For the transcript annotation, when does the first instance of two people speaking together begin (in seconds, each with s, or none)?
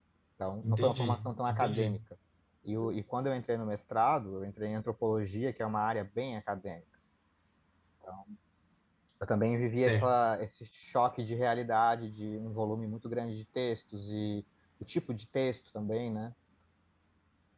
0.6 s